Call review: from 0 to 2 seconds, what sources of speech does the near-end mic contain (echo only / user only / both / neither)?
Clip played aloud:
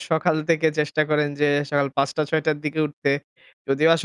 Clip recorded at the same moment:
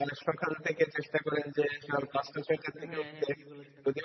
echo only